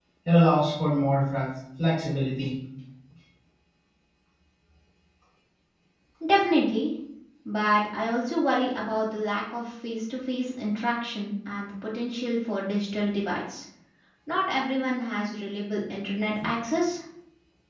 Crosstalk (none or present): none